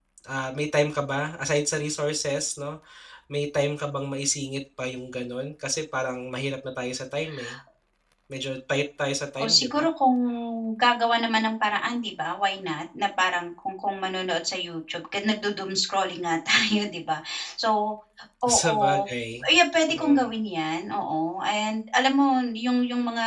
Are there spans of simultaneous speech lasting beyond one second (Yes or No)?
No